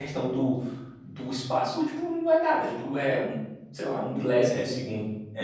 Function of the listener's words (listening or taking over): taking over